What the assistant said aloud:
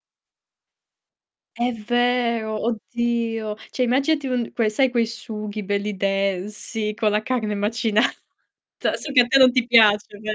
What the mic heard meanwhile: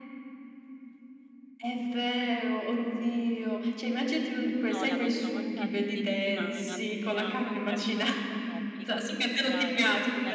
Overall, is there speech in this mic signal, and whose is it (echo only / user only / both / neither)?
both